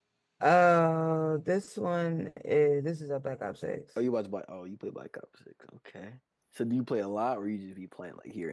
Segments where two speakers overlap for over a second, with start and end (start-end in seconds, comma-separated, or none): none